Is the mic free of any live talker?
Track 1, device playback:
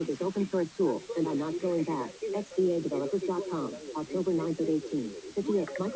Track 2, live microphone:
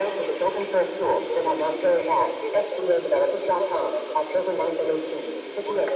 Yes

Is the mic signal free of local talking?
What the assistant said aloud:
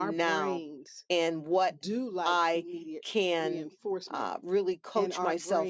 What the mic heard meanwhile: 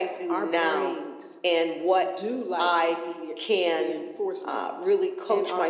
Yes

